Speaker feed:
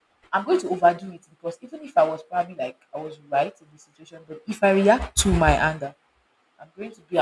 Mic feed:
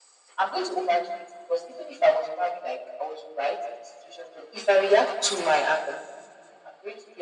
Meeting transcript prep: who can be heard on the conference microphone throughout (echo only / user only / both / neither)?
echo only